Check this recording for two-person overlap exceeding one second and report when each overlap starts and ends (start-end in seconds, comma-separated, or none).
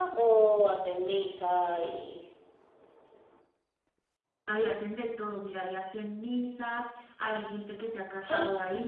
none